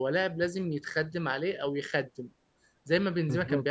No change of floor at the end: Yes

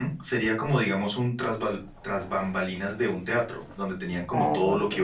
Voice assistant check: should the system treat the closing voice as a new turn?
No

